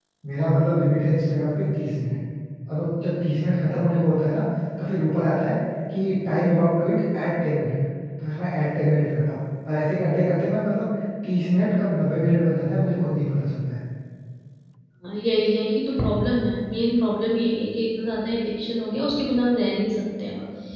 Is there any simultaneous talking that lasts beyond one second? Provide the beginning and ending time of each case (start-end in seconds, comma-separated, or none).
none